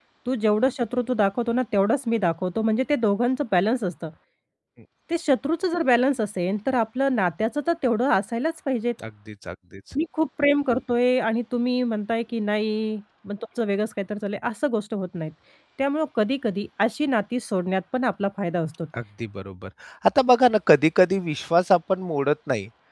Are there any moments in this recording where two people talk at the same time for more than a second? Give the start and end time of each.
none

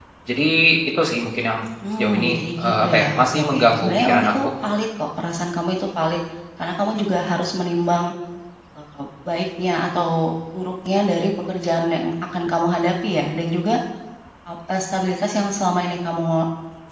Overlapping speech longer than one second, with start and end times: 2.0-4.5

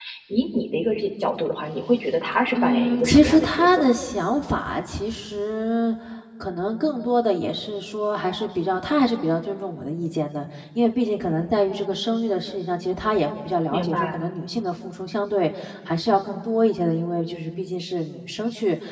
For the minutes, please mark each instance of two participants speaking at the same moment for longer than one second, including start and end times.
2.5-3.9

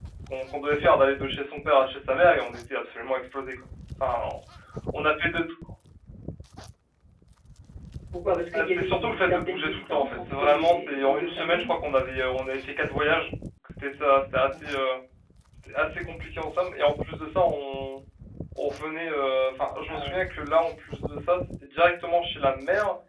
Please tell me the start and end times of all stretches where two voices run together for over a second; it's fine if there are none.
8.5-11.7

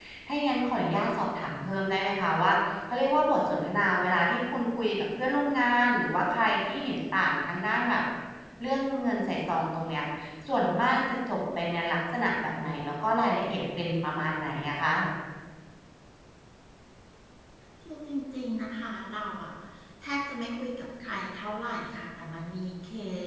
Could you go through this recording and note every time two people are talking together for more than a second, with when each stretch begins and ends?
none

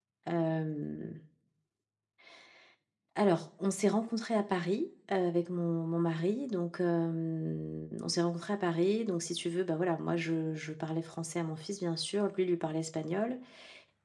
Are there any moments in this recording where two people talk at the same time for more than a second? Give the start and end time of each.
none

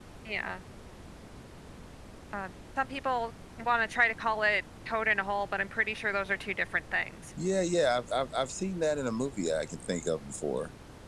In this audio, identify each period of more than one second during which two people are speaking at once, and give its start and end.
none

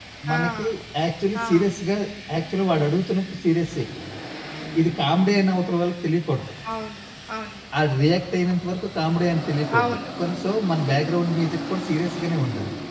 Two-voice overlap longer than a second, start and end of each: none

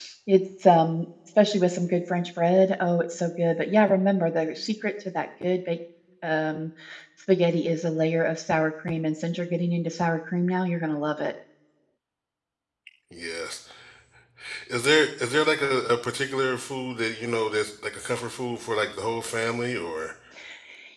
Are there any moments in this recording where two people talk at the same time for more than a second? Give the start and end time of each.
none

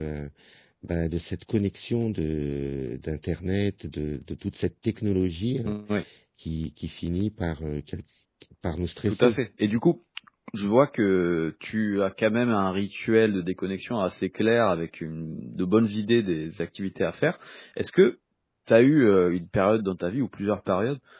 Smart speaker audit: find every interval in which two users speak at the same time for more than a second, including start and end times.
none

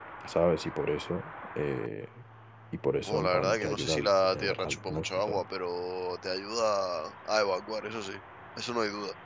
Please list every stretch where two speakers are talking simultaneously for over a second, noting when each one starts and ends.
3.0-5.4

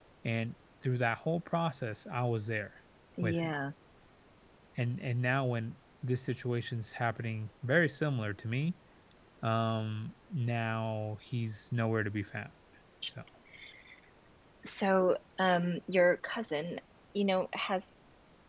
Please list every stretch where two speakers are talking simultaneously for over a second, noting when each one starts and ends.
none

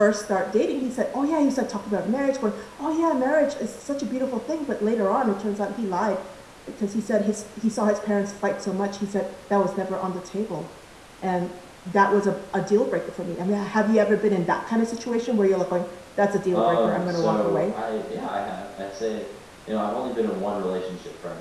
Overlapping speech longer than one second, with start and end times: 16.5-17.7

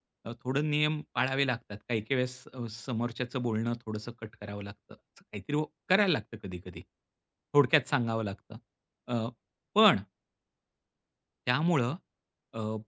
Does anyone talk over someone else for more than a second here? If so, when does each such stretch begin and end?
none

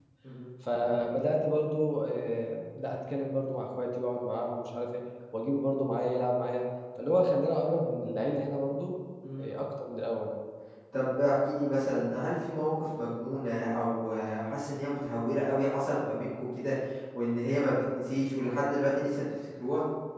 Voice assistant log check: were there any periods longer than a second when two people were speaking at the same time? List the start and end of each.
none

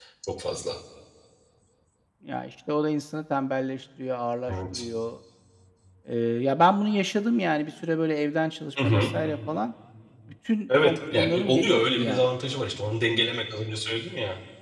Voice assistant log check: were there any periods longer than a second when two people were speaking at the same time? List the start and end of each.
10.8-12.3

